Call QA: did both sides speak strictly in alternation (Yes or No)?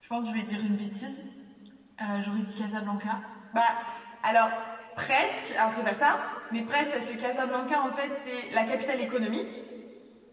Yes